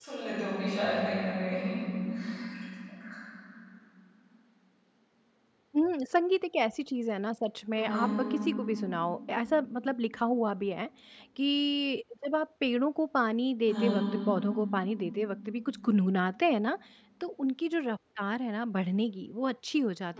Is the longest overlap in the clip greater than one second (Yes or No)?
No